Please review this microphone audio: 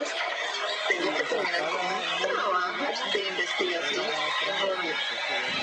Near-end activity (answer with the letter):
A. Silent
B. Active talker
B